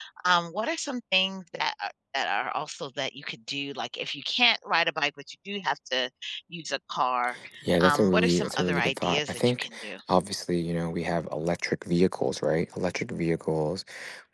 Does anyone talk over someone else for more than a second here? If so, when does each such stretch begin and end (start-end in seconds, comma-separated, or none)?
7.8-9.7